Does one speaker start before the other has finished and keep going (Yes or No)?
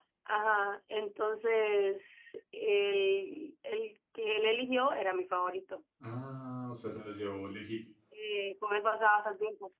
No